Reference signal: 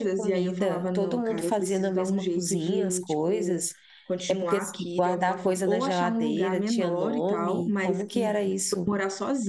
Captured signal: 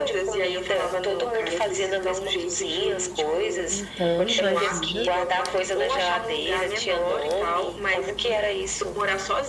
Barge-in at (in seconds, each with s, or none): 3.7 s